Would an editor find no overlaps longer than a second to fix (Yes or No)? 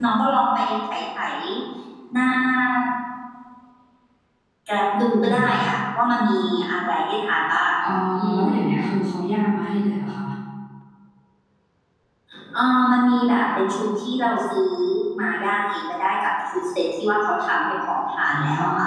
Yes